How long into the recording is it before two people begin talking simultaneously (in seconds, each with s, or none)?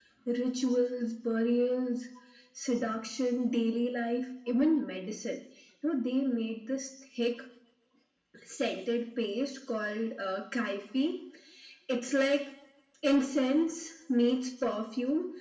none